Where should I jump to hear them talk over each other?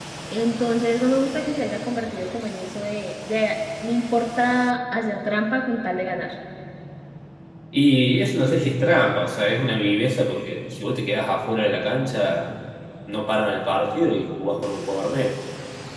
none

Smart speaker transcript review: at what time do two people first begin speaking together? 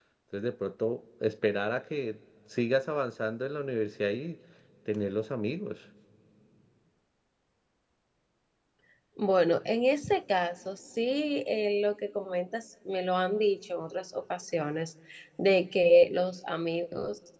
none

